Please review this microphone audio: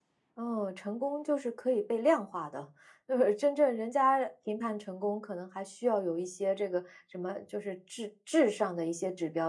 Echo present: No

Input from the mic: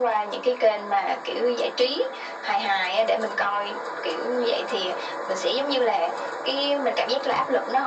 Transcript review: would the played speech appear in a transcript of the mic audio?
Yes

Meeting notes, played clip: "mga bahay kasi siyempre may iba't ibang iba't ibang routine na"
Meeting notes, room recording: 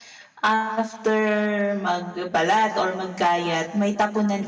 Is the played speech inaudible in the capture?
Yes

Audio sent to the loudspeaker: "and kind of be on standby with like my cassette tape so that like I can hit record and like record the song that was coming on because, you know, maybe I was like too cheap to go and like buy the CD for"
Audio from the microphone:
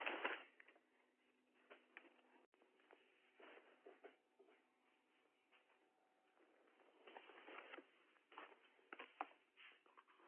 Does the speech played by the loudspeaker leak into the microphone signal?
No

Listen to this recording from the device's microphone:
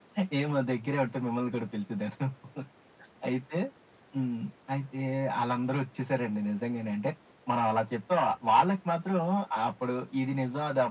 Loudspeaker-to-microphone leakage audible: Yes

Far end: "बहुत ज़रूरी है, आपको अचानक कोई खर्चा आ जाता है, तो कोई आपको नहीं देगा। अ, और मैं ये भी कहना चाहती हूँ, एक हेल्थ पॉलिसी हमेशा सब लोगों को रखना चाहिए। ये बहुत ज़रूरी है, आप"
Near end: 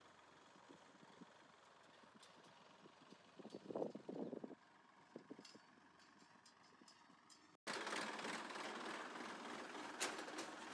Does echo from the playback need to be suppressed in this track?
No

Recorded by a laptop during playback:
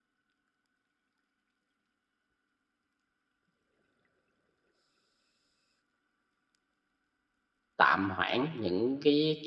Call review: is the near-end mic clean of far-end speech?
Yes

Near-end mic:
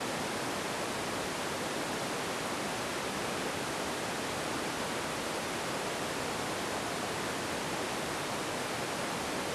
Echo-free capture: Yes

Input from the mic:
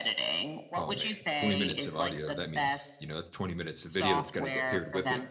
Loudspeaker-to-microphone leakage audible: Yes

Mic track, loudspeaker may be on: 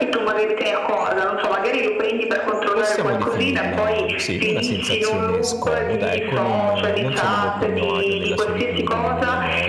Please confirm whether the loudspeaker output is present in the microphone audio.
Yes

